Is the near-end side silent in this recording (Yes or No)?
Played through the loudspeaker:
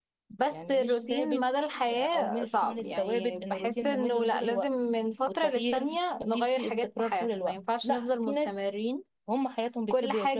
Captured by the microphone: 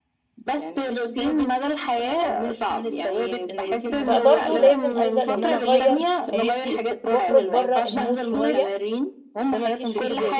No